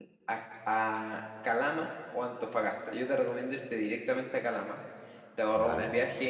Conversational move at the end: listening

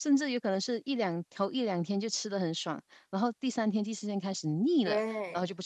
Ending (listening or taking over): taking over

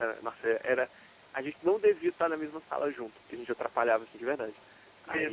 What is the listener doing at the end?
listening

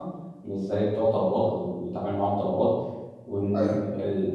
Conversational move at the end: listening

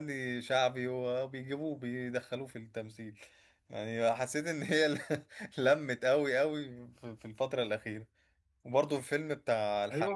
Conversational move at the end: taking over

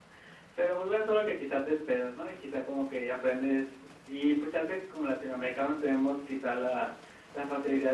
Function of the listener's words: listening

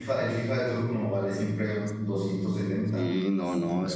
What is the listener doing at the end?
taking over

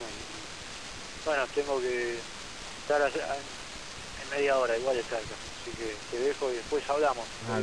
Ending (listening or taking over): taking over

